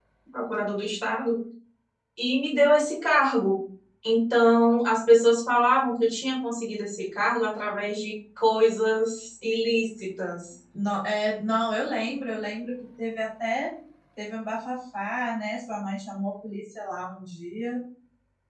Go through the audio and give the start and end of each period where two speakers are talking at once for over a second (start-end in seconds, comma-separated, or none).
none